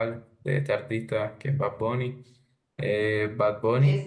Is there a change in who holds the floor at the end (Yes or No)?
No